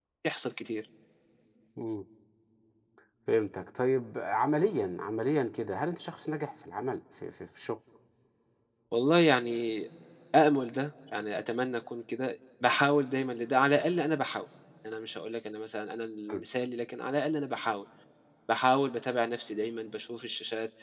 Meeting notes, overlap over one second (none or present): none